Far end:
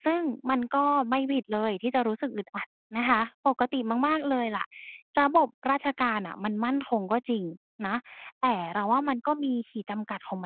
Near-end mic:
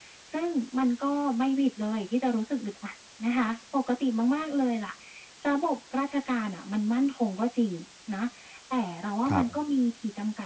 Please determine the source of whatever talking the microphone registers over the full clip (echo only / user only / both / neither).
both